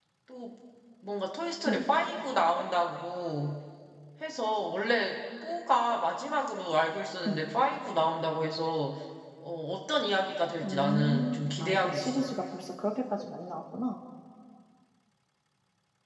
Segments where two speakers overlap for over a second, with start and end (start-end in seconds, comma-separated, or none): 10.6-12.3